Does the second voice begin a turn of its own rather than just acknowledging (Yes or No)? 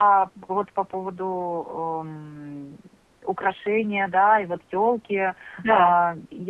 No